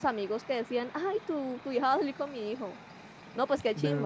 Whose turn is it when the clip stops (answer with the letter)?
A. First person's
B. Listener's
B